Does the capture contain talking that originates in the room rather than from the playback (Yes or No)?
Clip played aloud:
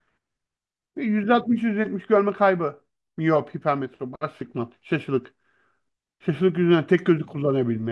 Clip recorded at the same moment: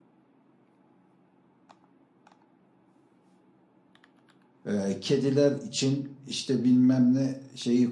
Yes